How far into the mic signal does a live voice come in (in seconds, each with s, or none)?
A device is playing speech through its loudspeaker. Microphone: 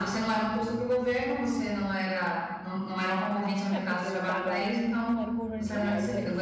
3.7 s